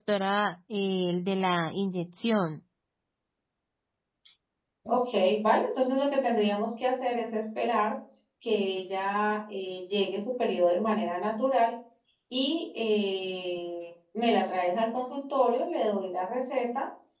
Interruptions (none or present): none